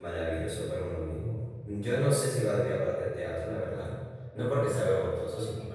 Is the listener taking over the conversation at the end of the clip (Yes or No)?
No